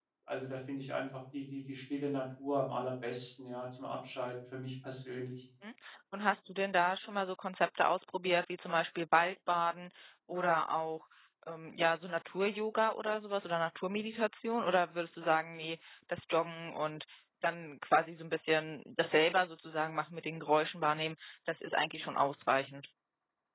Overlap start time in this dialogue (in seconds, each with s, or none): none